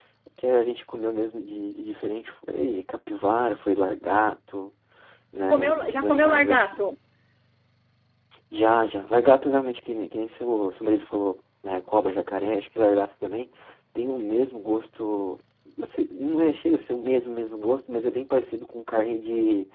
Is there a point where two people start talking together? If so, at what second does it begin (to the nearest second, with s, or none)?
6 s